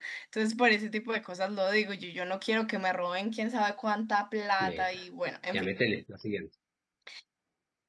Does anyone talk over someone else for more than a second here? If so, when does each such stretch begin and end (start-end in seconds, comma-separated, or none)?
none